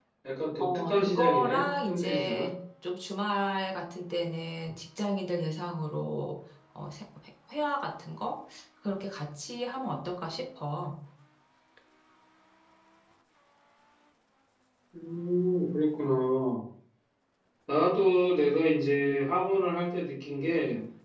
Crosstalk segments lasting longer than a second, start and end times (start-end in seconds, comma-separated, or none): 0.6-2.5